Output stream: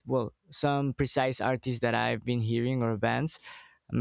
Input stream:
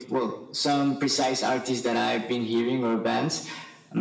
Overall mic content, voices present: echo only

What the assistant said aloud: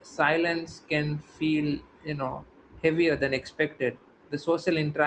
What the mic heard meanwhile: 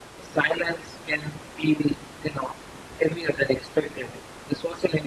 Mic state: echo only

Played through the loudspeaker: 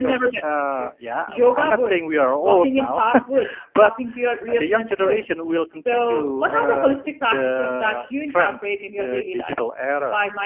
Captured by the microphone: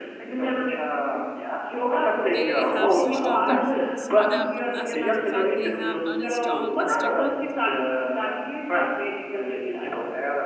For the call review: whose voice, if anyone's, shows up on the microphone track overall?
both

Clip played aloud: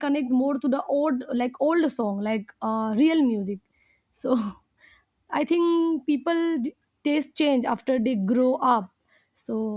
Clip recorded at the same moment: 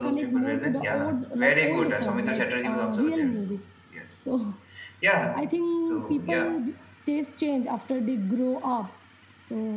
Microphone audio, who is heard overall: both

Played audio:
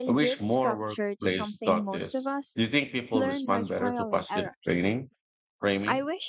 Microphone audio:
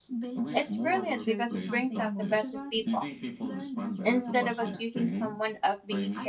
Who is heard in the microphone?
both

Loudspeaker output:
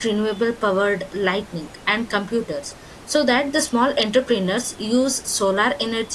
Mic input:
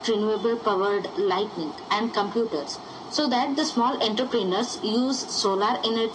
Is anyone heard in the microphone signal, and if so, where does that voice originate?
echo only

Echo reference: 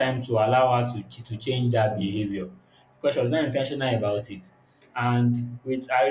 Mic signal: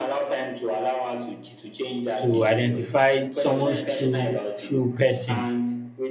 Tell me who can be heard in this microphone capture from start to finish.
both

